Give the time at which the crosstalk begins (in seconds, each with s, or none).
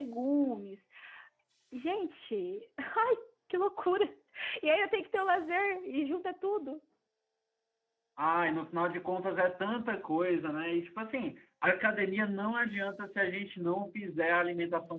none